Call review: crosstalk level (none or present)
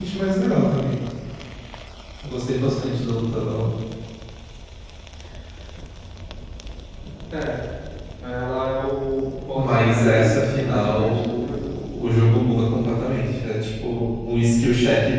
present